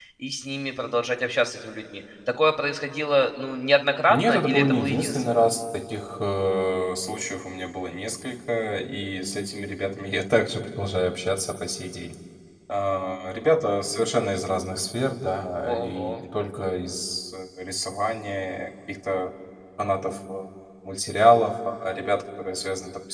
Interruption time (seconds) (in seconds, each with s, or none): 4.1 s